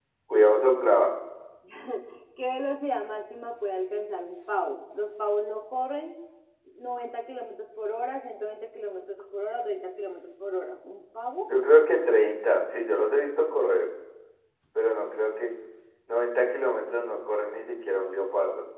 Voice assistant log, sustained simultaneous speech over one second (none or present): none